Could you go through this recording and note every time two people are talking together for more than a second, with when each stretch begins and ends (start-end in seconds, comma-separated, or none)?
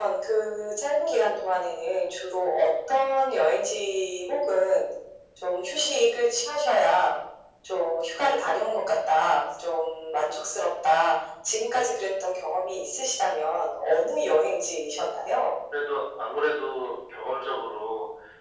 none